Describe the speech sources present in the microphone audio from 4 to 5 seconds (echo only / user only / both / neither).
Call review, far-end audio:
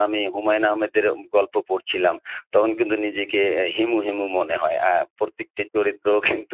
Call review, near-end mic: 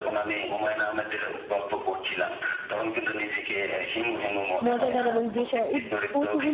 both